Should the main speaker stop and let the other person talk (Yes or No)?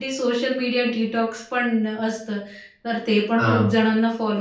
No